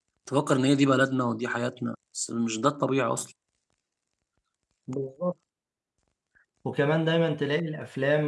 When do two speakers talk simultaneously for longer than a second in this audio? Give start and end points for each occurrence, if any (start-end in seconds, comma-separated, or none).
none